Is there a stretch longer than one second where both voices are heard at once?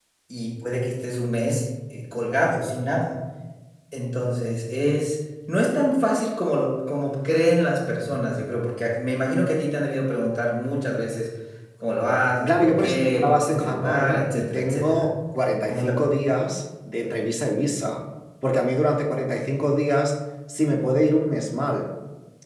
Yes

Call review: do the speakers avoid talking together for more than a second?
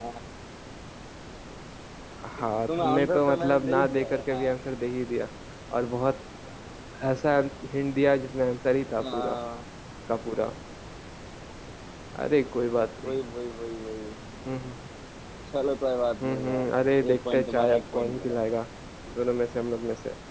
No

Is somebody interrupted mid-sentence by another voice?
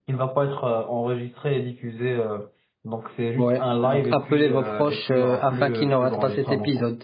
Yes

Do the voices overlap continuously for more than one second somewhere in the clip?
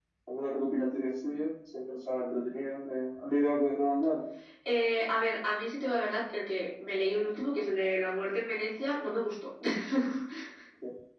No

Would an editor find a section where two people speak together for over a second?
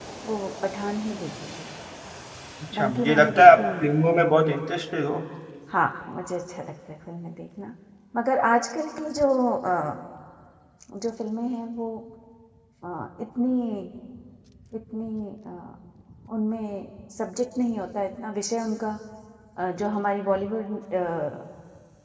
Yes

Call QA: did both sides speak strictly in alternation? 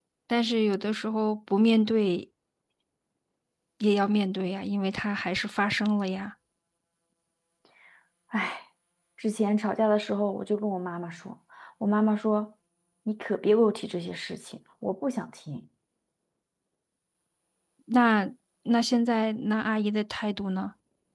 Yes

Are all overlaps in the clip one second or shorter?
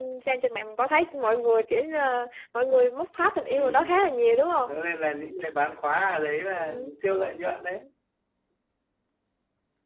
Yes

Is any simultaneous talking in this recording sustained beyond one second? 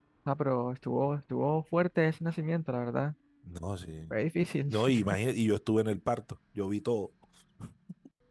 No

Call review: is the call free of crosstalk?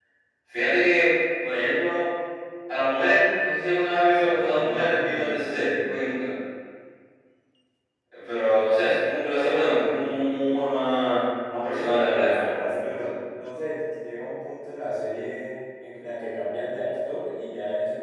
No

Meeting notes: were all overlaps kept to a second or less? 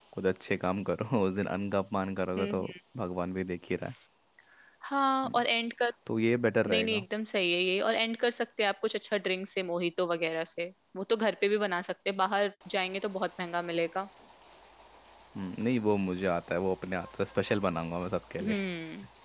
Yes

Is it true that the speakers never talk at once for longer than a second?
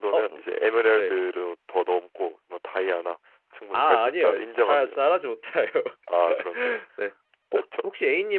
No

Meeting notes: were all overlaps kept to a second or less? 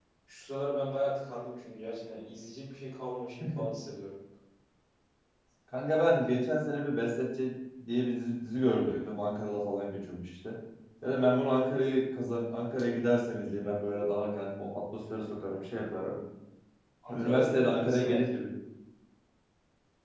No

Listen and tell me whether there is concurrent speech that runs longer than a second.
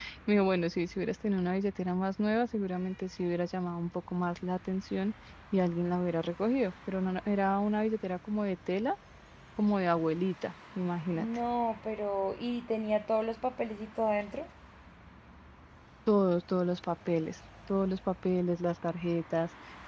No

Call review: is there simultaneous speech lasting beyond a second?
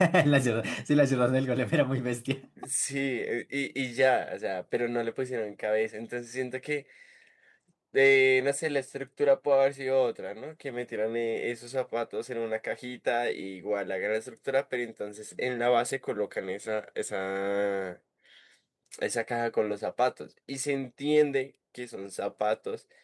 No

